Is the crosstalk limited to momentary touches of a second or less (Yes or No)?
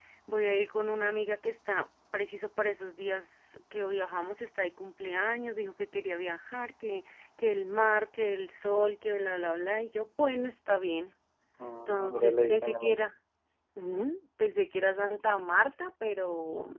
No